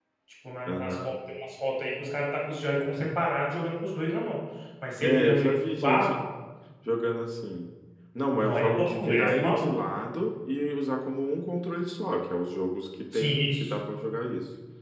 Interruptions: present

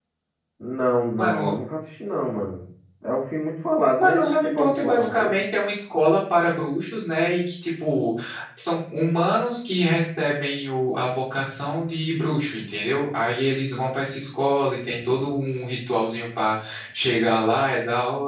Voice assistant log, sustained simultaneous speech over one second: present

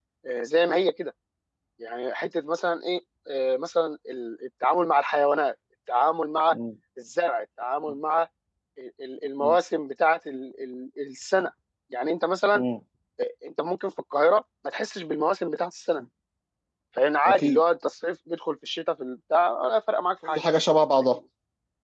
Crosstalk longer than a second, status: none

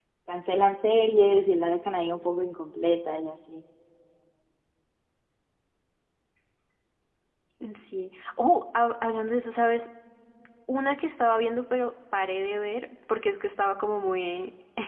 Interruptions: none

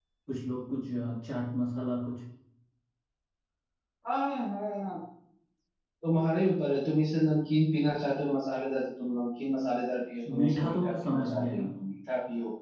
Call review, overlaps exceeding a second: present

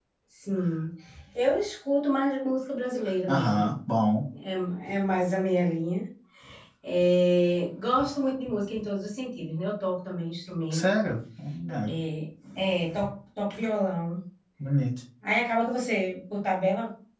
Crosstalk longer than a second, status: none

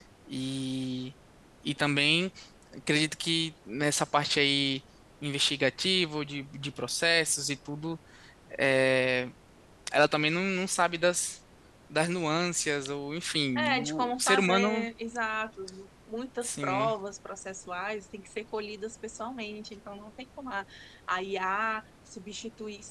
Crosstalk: present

